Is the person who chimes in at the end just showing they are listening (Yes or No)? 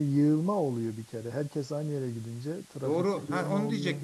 No